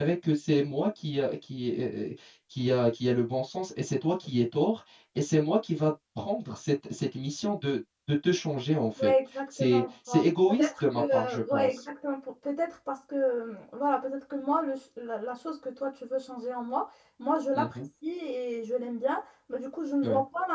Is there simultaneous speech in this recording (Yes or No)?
Yes